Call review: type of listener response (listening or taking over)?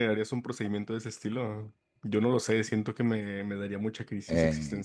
taking over